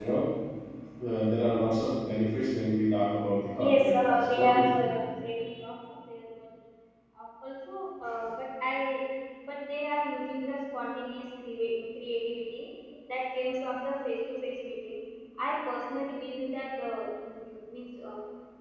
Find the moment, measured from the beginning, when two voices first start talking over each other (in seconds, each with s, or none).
3.6 s